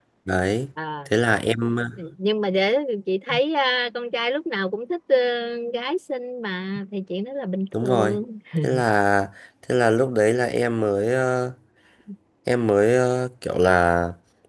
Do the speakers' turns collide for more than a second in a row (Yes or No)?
No